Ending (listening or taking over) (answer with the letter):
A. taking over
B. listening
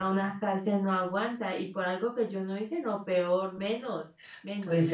A